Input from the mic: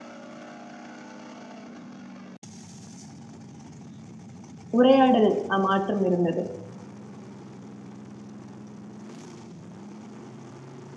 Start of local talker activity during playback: 4.8 s

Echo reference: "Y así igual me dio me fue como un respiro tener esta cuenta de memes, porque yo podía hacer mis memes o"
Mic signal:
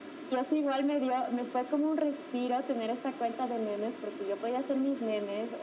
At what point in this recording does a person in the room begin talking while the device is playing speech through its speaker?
none

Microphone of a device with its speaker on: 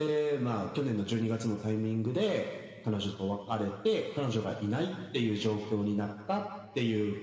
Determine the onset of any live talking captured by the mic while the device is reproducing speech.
none

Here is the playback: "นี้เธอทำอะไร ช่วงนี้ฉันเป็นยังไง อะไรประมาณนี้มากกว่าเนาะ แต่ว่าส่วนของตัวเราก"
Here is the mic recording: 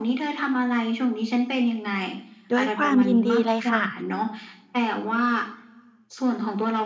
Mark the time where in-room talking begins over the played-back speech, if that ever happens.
2.5 s

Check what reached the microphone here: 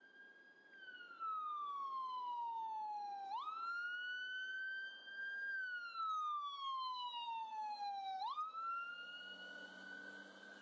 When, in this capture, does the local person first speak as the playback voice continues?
none

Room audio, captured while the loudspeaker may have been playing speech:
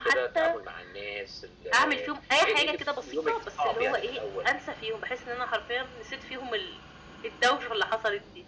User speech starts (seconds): none

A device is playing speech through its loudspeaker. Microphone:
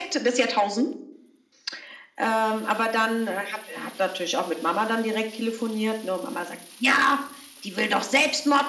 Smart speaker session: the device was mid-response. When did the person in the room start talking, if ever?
none

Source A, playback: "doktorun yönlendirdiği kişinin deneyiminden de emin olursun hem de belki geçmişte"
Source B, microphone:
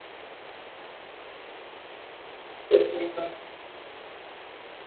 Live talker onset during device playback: 2.7 s

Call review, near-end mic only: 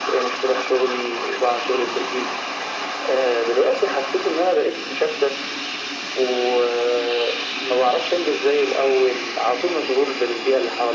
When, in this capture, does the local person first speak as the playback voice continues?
none

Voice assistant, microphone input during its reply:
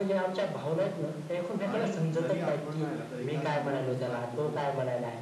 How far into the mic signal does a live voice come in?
1.6 s

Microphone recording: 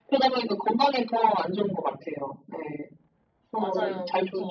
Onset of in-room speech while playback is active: 3.5 s

